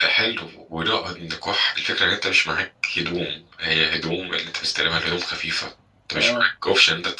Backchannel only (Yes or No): Yes